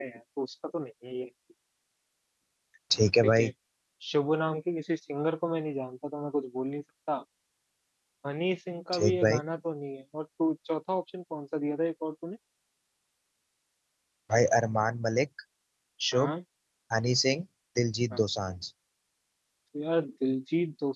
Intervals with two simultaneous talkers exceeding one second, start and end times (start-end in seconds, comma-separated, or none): none